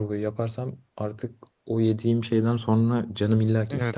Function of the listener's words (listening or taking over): taking over